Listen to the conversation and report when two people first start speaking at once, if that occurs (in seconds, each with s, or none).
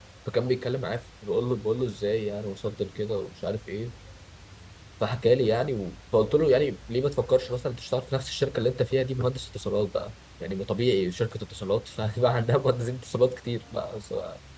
none